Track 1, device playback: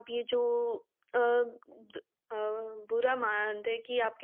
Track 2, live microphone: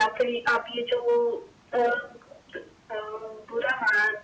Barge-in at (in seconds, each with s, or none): none